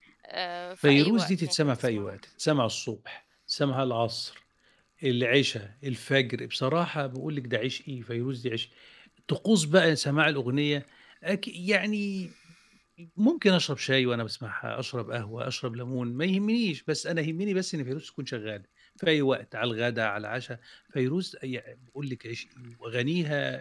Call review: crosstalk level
present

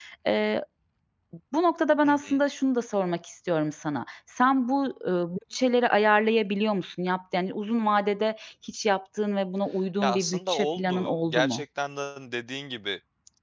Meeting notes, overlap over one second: present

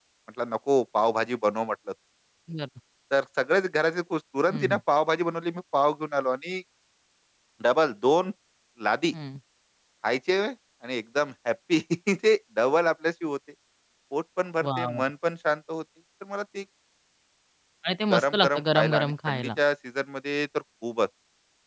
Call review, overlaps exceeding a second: present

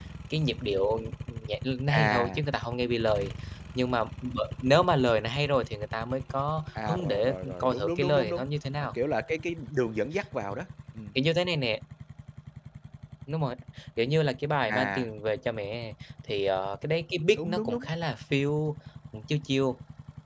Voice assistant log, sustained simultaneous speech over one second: present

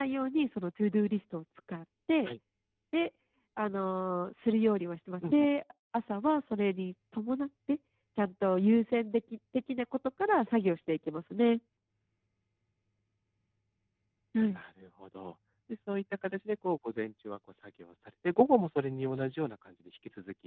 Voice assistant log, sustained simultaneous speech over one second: none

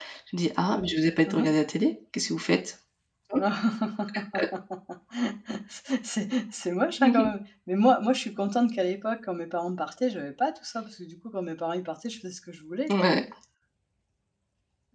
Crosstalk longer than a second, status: none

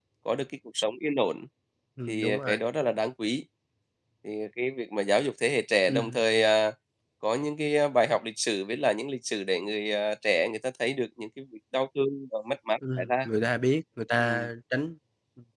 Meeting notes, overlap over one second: none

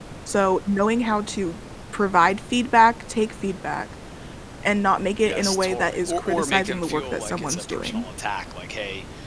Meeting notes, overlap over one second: present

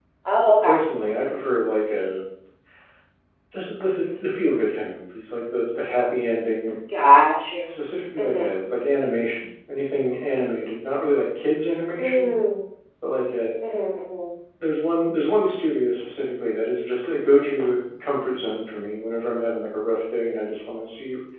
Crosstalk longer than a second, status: none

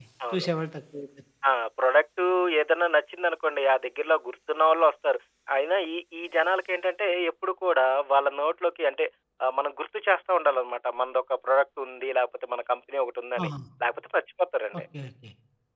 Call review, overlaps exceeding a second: none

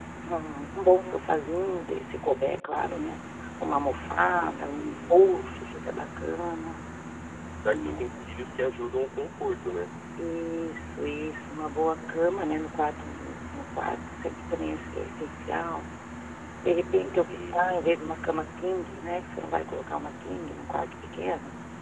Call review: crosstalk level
present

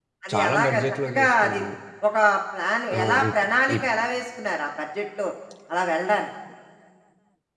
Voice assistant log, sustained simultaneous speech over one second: present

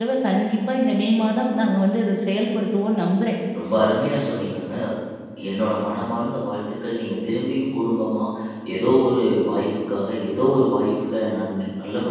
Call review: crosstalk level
none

